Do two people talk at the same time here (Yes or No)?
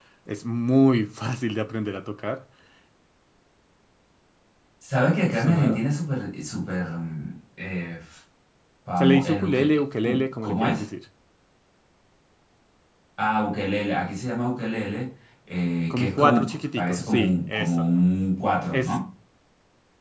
Yes